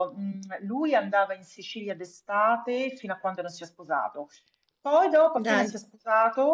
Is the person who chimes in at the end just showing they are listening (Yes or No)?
Yes